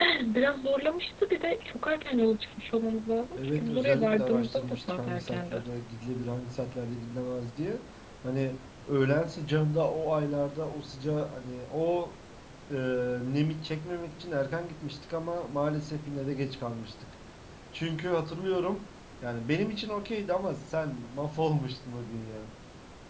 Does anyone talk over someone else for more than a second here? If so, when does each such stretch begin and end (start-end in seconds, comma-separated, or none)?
3.4-5.6